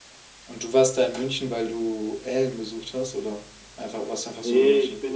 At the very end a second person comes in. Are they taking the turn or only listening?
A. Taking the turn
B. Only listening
A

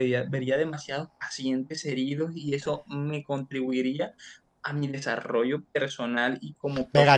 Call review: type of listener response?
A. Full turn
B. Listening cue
A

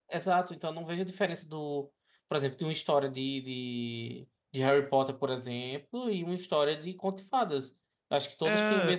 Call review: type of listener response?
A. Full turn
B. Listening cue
B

